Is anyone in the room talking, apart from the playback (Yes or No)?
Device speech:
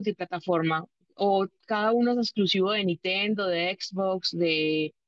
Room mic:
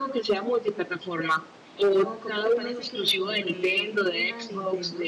Yes